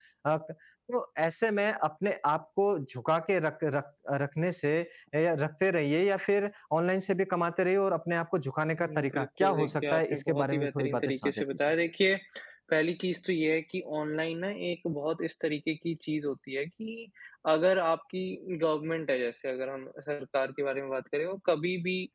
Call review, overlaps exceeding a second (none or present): present